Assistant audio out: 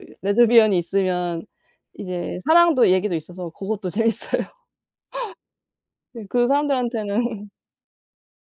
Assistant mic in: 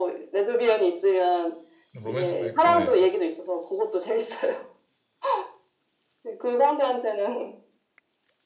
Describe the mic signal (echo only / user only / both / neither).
both